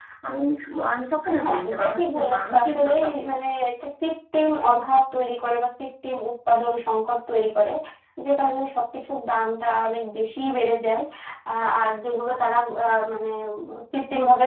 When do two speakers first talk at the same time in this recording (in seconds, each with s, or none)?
1.4 s